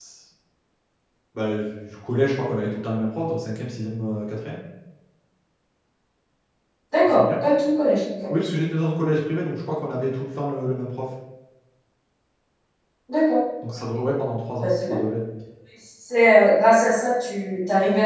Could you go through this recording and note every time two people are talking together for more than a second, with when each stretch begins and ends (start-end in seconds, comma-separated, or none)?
none